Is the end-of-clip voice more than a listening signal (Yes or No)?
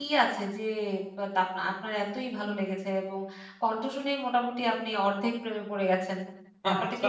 Yes